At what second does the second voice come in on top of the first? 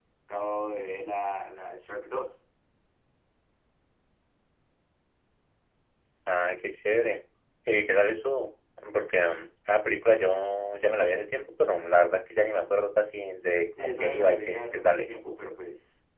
14 s

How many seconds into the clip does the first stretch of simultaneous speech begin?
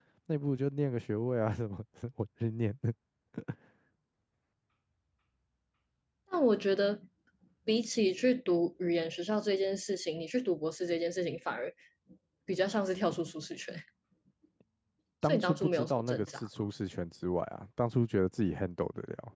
15 s

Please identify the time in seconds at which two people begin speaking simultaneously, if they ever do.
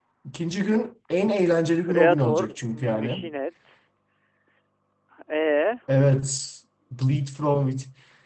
2 s

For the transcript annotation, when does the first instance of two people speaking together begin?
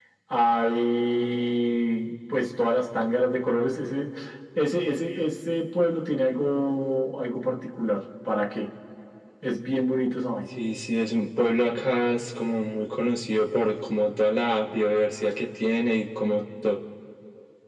none

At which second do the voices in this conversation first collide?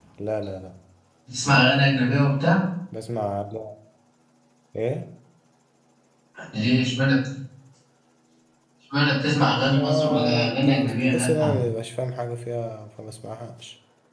10 s

